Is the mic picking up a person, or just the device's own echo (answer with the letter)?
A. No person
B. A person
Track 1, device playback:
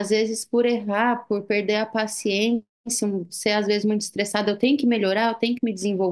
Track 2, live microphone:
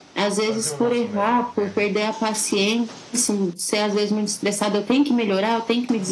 B